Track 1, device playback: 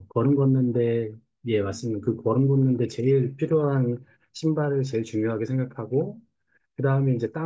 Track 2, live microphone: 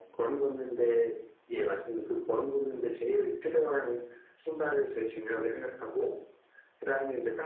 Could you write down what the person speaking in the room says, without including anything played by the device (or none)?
none